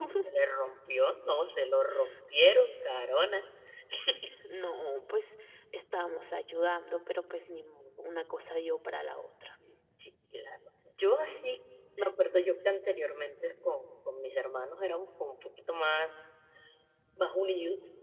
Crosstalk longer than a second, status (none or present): none